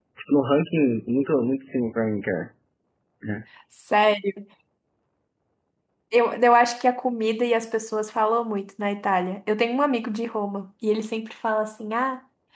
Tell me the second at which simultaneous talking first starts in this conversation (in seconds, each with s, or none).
none